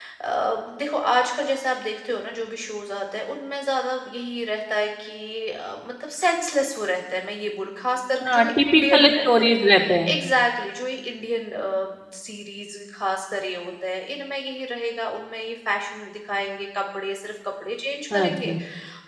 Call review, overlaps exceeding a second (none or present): present